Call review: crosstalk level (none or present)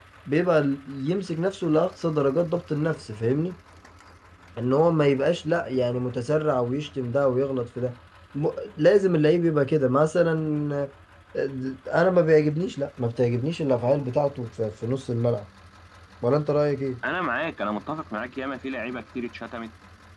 none